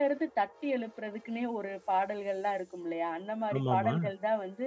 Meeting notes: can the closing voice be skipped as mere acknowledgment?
Yes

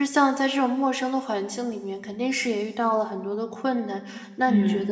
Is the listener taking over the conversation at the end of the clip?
No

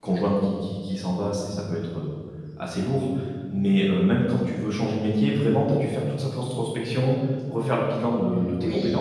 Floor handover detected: Yes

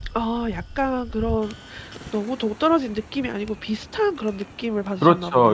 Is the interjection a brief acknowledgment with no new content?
No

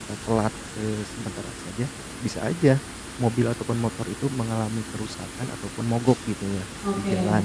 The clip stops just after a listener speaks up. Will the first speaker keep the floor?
Yes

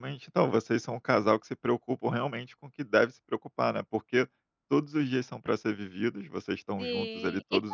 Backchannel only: No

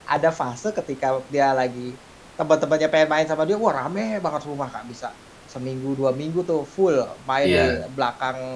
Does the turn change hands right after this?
No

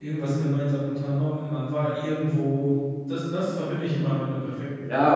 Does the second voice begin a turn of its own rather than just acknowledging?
Yes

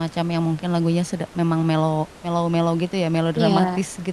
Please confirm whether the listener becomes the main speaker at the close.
Yes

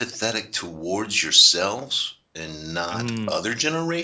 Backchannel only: Yes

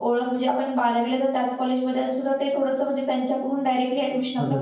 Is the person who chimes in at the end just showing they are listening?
No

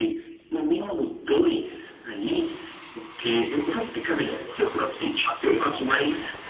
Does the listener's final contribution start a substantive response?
No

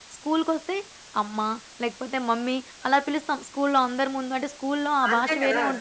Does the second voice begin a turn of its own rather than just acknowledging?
Yes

